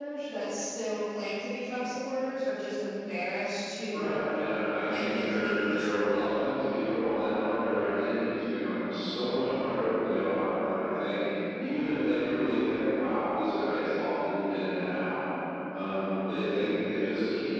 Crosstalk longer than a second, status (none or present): present